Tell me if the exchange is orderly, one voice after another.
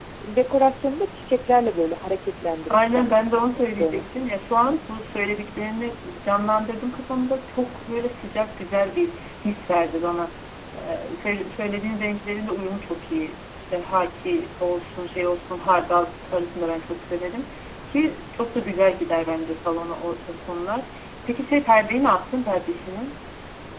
No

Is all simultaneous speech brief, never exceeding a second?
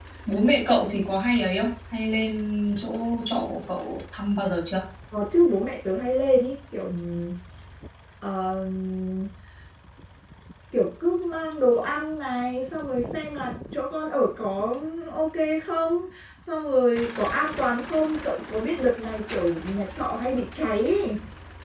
Yes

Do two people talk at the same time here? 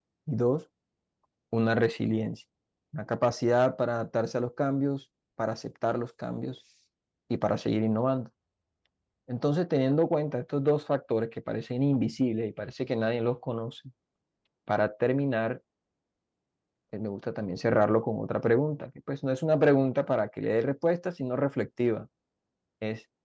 No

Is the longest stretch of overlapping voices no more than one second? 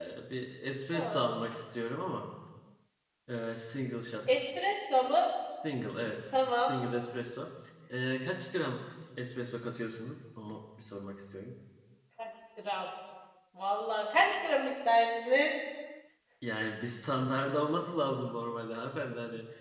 Yes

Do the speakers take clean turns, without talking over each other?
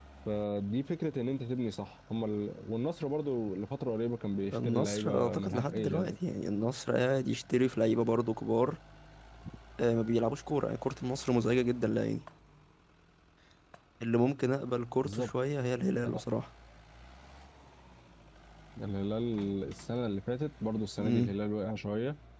No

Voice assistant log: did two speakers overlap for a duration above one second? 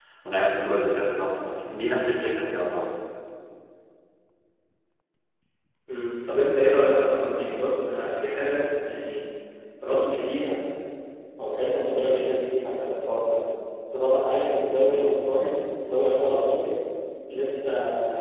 No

